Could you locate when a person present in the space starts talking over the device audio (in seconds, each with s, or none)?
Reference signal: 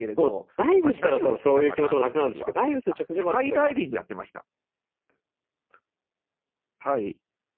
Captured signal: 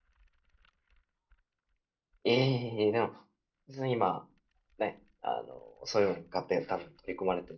2.2 s